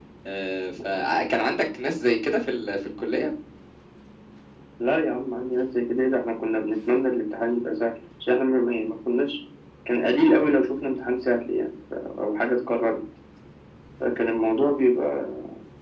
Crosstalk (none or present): none